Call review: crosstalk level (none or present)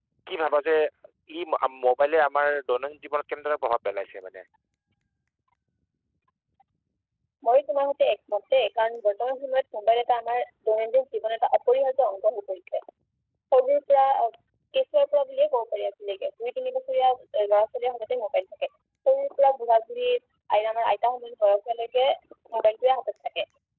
none